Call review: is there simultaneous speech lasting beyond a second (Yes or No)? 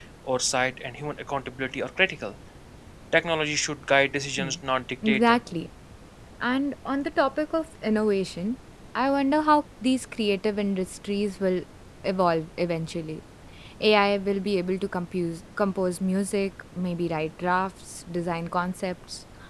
No